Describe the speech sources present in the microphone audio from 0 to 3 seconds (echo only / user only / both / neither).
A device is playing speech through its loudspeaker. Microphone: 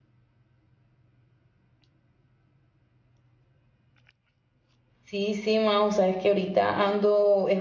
neither